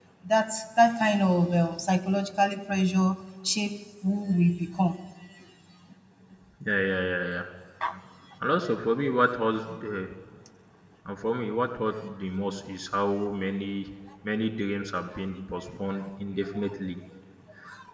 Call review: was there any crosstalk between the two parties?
No

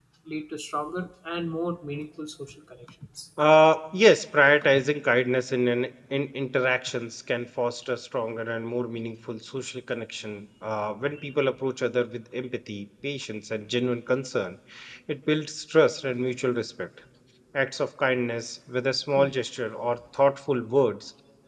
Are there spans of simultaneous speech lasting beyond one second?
No

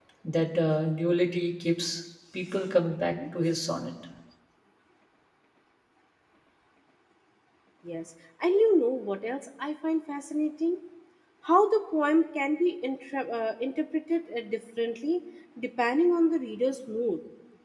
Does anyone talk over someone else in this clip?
No

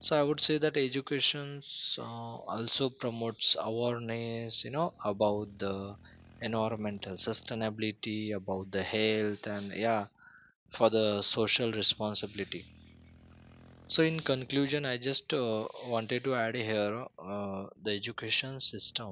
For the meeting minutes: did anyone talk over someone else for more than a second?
No

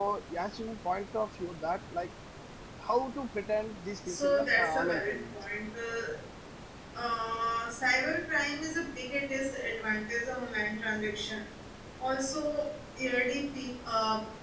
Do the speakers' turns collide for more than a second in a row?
Yes, from 4.1 s

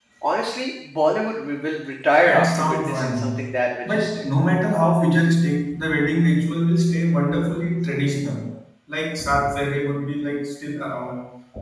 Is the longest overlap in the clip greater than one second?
Yes, from 2.2 s

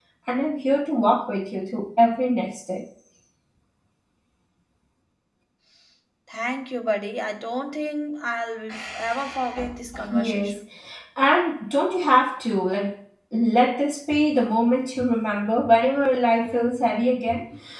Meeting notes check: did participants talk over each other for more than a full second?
No

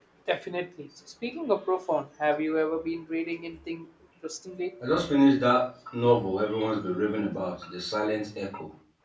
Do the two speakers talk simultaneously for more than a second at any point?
No

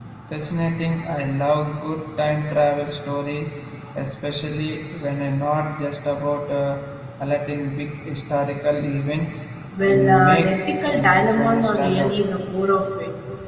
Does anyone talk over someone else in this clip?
Yes, from 9.9 s

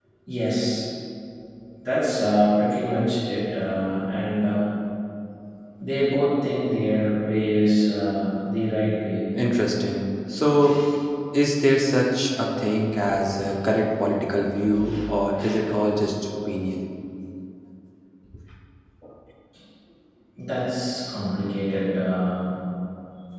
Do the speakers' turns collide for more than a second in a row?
No

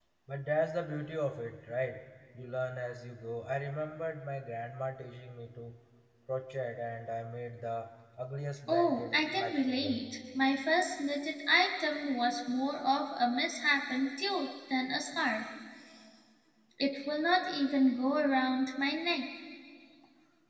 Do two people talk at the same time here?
Yes, from 8.7 s

